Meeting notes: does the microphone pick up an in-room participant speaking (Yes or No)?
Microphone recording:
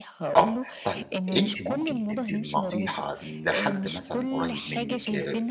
Yes